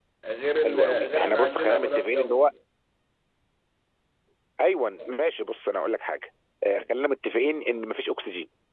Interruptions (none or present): present